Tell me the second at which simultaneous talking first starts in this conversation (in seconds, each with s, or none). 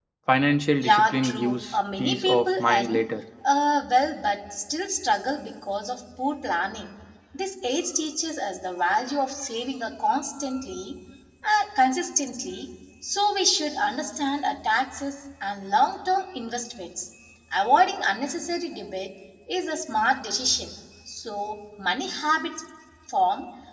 0.8 s